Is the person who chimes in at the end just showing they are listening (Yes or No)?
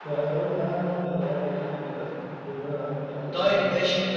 No